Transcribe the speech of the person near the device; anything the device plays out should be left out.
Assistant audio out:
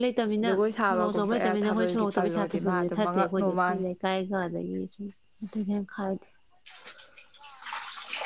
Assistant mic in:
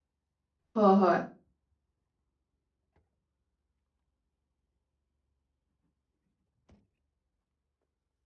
ꯍꯣꯏ ꯍꯣꯏ

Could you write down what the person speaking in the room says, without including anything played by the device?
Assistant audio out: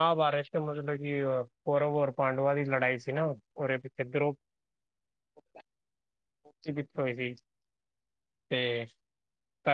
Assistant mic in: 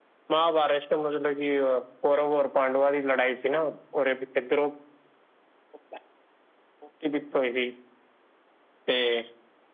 none

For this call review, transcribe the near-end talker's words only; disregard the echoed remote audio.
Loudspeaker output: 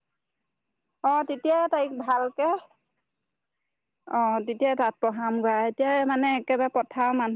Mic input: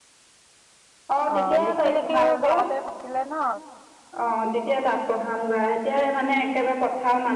অ লিখি লিখি ঘৰতে থাকিলে ন

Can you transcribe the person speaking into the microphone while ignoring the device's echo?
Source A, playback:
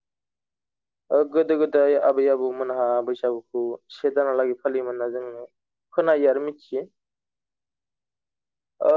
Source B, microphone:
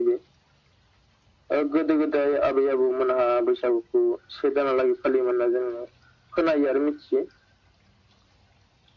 none

